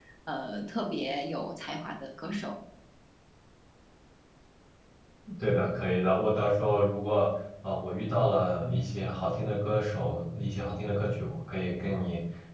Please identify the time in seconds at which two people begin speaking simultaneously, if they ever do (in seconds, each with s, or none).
none